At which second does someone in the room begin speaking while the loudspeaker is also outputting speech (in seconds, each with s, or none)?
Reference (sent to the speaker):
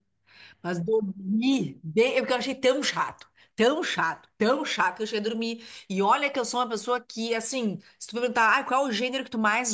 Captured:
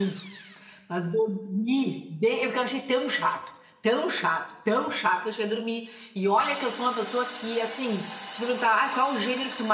none